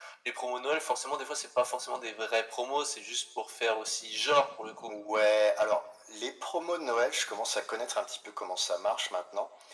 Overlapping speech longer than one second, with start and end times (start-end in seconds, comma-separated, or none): none